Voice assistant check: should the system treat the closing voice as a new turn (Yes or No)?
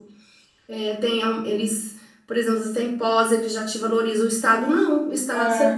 No